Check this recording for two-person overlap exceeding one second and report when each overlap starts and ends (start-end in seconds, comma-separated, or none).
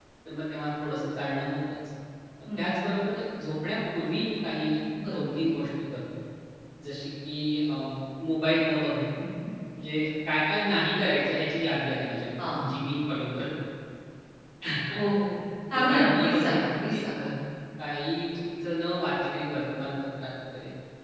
15.7-17.3